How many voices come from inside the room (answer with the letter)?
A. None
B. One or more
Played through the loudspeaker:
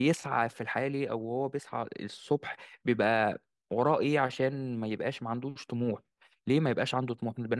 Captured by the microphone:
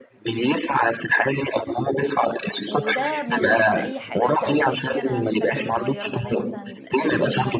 B